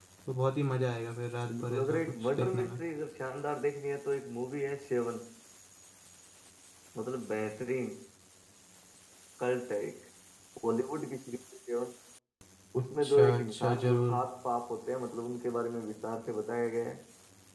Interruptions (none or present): present